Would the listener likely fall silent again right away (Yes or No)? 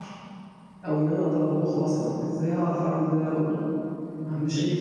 No